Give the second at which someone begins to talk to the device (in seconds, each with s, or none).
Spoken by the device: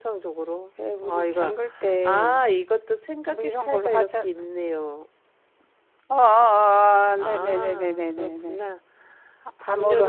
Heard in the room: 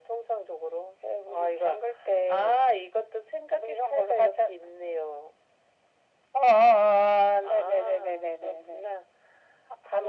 none